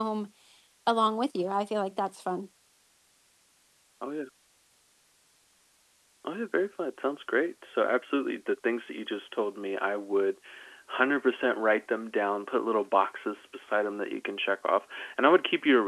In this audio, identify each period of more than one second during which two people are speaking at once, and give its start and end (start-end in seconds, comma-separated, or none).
none